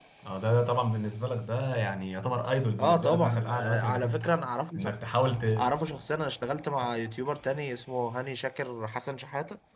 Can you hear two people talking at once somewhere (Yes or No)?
Yes